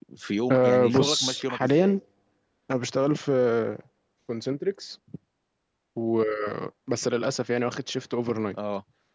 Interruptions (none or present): present